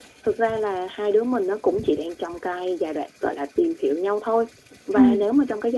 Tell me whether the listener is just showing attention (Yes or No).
Yes